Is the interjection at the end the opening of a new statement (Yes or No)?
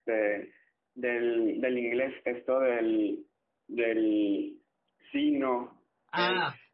Yes